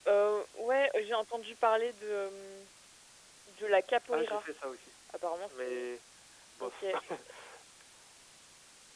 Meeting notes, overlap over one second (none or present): none